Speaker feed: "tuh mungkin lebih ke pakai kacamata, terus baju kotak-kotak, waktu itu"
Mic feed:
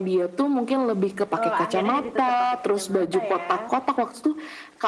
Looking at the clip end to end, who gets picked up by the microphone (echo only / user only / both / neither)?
both